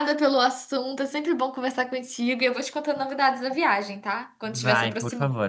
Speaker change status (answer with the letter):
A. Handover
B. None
A